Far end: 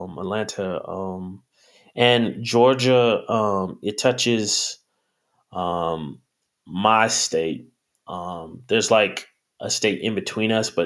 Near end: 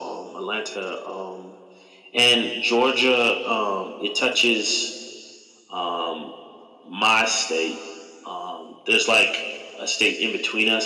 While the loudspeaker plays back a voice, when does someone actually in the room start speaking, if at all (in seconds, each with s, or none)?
none